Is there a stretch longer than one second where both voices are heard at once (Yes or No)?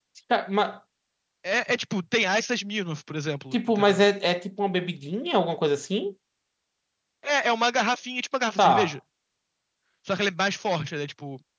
No